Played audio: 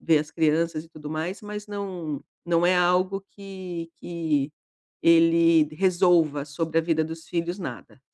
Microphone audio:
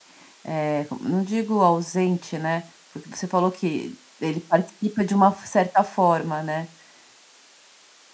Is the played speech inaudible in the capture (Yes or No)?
Yes